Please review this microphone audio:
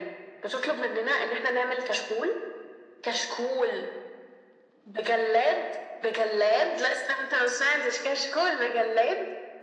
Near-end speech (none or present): none